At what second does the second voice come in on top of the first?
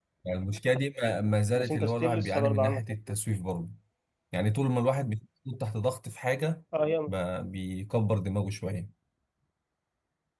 1.5 s

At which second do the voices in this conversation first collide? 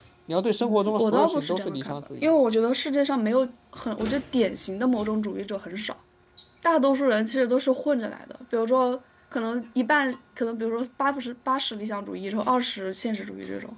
0.6 s

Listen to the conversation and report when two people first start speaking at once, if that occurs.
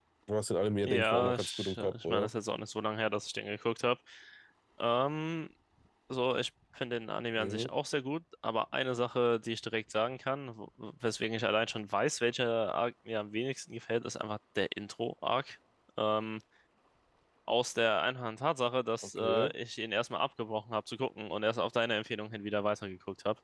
0.8 s

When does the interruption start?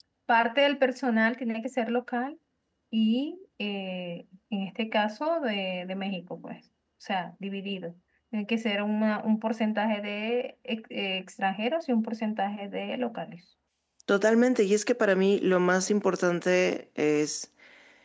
none

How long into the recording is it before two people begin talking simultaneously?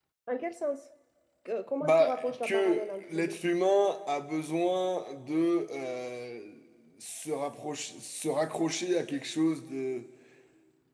1.8 s

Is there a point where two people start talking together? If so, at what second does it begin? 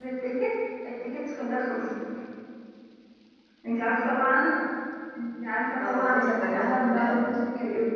5.8 s

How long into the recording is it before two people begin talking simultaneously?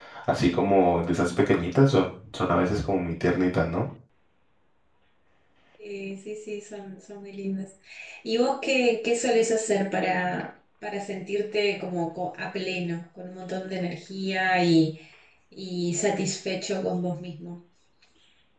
none

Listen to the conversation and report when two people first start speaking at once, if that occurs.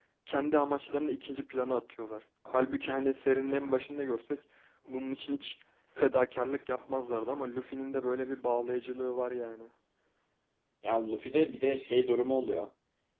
none

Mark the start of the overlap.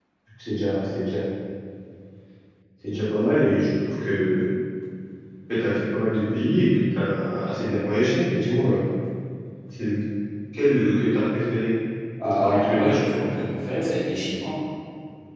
12.2 s

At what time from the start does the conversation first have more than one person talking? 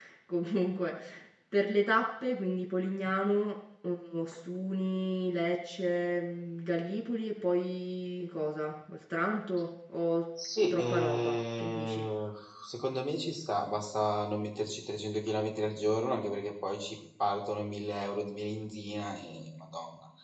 10.7 s

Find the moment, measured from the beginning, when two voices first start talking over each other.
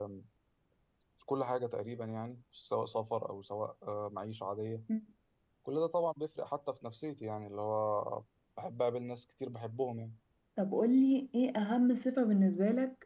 none

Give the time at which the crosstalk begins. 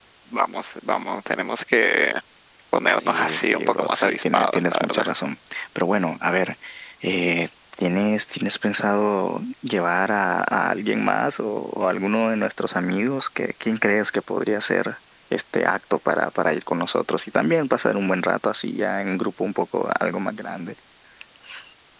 3.0 s

